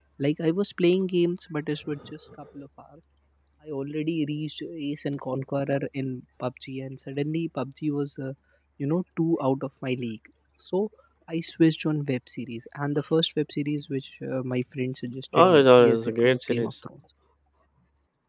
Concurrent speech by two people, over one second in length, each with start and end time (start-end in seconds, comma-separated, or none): 15.3-16.7